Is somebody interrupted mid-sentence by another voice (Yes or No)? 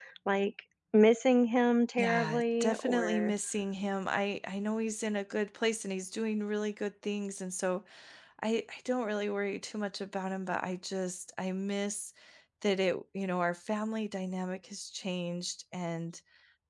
Yes